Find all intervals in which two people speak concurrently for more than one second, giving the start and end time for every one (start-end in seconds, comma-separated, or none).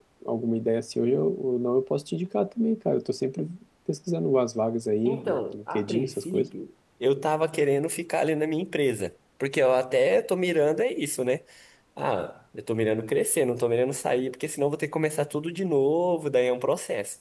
5.0-6.5